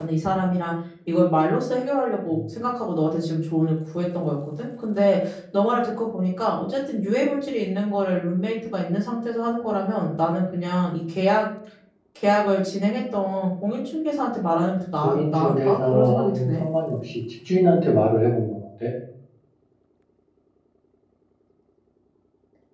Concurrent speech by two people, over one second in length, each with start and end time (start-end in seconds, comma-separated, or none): 15.0-16.6